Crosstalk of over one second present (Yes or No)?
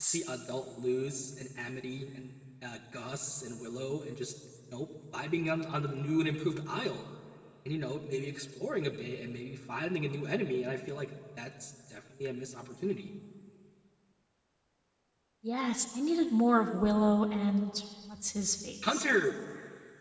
No